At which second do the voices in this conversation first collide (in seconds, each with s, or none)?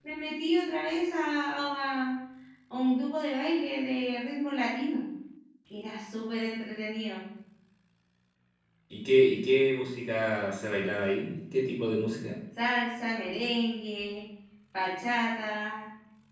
none